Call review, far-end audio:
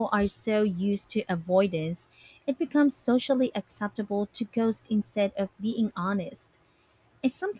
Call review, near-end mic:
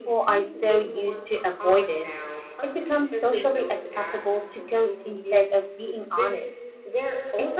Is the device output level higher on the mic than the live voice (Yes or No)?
Yes